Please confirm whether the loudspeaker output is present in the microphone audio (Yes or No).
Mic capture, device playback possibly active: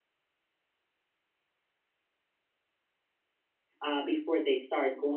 No